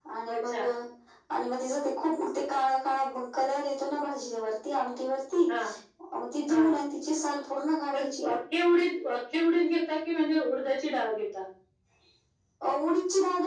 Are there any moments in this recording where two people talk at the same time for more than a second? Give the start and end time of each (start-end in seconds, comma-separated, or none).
none